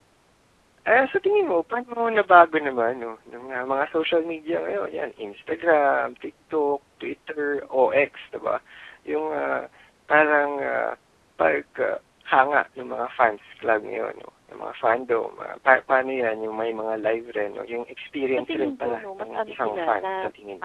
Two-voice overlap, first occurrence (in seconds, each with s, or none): 18.4 s